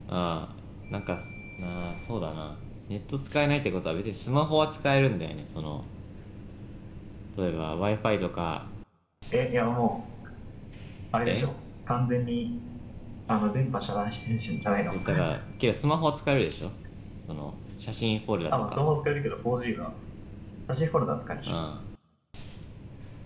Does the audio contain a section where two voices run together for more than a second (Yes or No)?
No